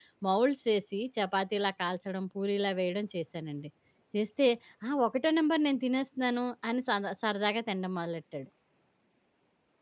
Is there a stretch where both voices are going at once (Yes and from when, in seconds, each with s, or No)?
No